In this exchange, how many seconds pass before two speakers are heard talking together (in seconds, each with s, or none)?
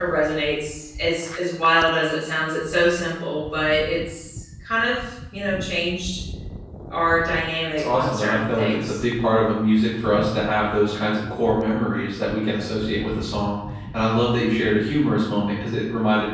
7.8 s